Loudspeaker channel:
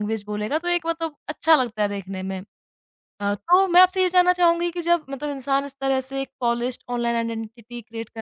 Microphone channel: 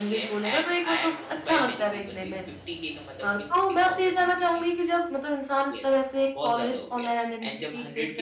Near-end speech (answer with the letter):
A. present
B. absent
A